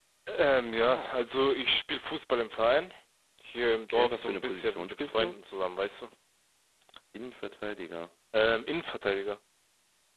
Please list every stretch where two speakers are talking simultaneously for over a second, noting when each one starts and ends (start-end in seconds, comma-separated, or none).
3.9-5.3